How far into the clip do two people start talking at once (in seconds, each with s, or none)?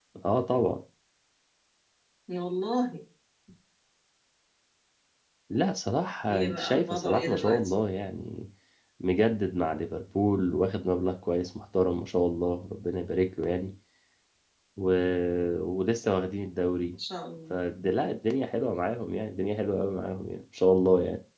6.3 s